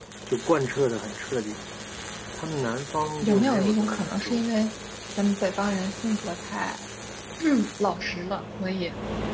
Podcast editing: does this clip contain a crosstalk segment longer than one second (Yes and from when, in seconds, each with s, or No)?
Yes, from 3.2 s